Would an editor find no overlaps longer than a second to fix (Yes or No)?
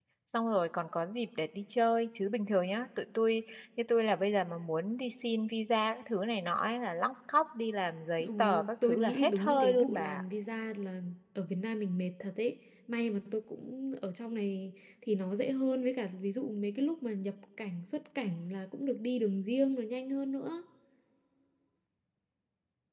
No